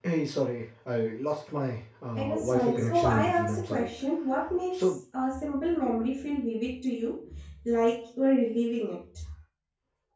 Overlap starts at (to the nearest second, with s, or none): 2 s